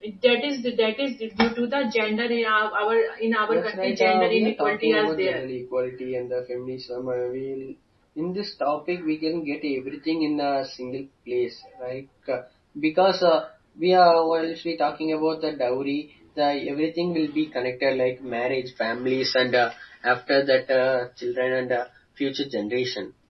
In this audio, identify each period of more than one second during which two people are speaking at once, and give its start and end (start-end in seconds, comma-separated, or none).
3.5-5.4